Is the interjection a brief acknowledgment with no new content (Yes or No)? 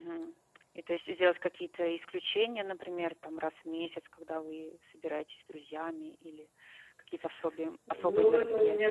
No